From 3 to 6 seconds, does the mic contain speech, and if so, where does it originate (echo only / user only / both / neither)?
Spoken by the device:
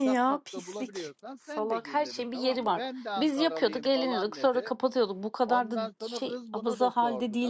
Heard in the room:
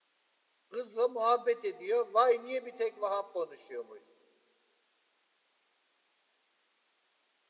user only